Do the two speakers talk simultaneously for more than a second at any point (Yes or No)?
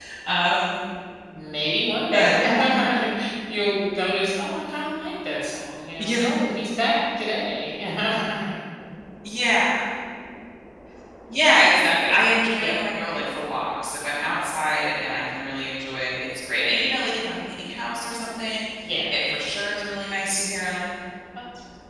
No